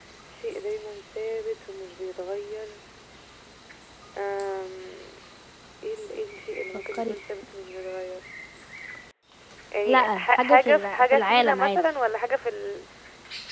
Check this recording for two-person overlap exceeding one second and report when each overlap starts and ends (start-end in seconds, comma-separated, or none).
9.8-11.8